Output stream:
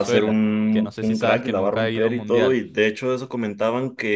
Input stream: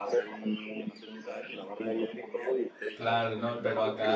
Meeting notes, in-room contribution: present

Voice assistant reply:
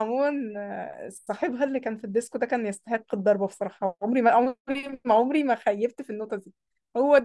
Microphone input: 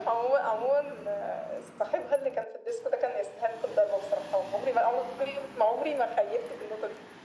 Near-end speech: none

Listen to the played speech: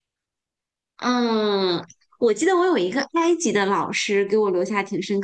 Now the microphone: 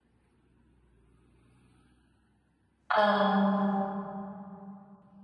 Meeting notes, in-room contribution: present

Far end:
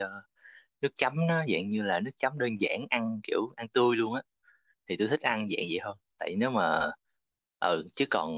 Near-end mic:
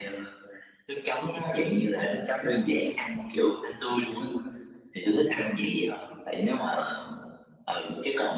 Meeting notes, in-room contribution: none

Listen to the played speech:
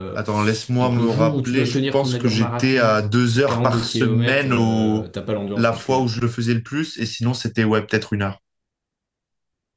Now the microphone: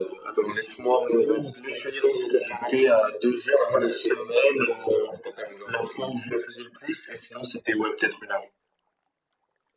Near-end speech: none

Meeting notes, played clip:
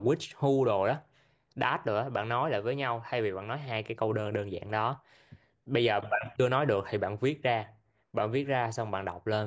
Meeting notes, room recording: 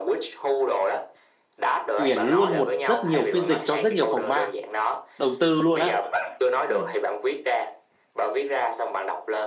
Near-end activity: present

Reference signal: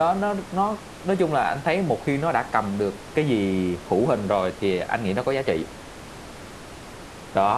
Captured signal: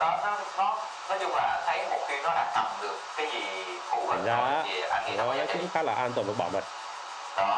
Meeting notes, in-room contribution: present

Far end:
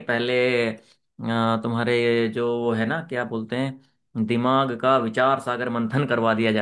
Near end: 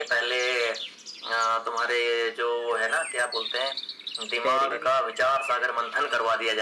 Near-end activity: present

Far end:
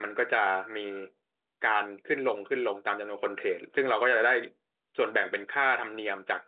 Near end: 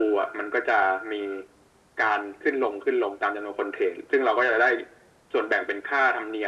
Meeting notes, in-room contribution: none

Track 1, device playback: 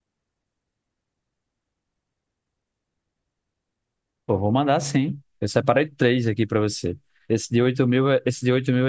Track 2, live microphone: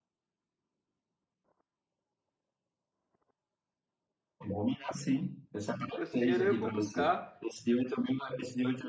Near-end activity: present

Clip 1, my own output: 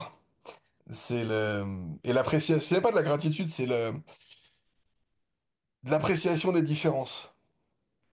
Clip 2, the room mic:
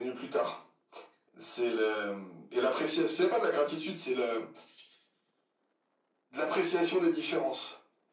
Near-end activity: none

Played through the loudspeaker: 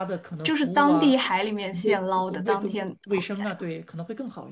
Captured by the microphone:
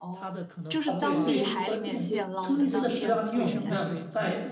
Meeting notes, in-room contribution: present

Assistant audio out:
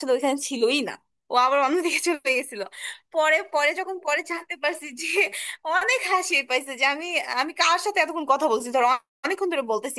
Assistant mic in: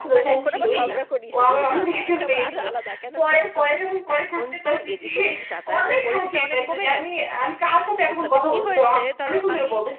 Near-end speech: present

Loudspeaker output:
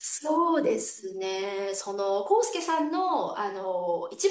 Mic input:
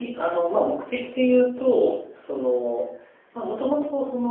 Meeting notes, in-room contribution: present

